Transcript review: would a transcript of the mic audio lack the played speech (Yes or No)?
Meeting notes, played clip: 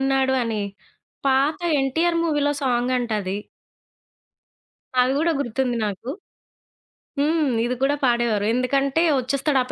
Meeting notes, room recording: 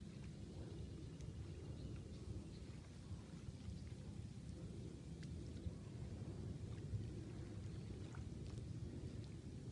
Yes